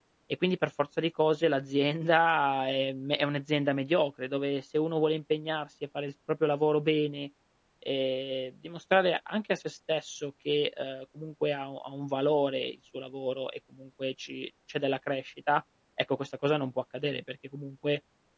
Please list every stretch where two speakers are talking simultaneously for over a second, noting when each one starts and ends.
none

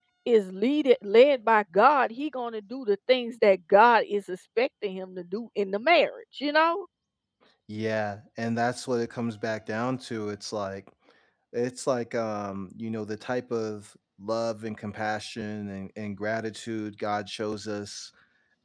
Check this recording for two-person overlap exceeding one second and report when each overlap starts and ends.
none

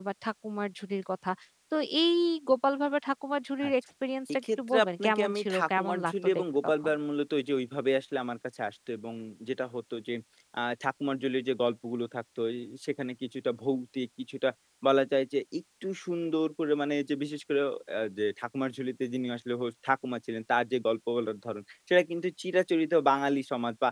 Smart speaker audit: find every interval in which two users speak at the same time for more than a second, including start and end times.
4.4-6.7

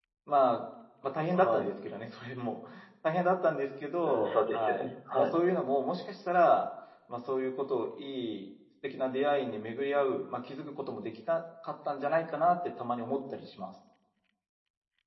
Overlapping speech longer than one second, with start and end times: 4.0-5.3

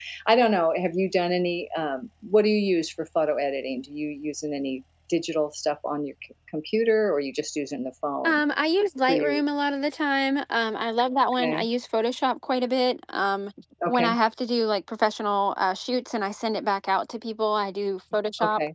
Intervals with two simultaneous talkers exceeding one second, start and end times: none

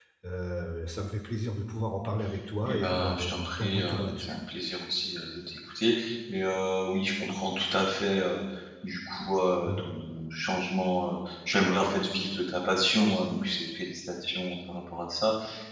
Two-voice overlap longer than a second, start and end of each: 2.6-4.3

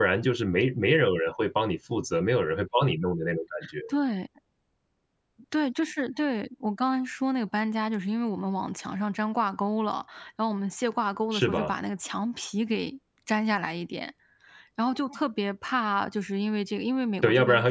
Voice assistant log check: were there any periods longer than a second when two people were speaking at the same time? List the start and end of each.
none

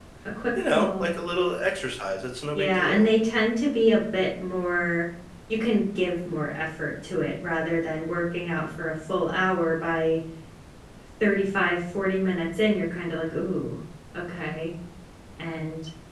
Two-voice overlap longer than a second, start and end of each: none

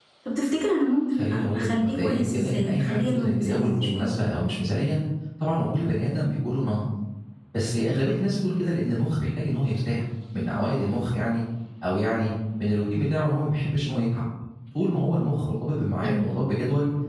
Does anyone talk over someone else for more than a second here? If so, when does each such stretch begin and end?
1.1-4.0

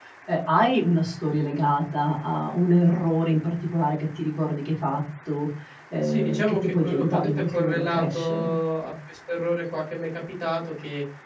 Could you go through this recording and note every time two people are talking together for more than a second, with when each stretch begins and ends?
6.0-8.5

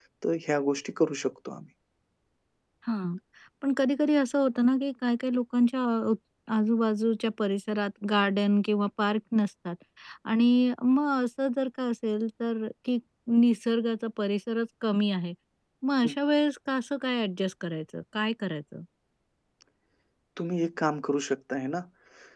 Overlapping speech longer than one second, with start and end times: none

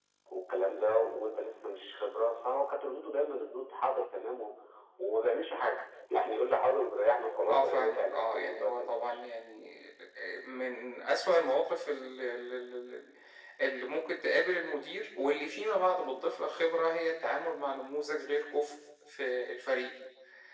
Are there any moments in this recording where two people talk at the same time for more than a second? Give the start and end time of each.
7.5-8.9

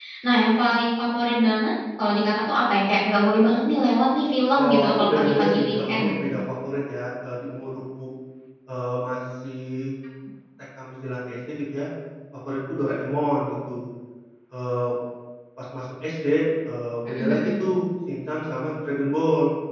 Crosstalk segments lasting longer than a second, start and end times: 4.6-6.1

